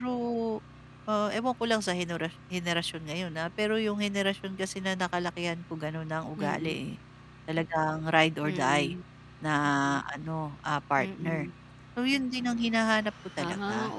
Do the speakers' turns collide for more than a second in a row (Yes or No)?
No